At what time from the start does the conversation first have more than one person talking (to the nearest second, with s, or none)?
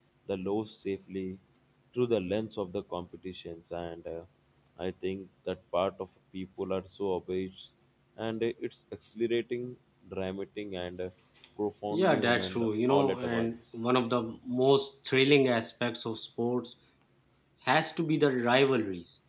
12 s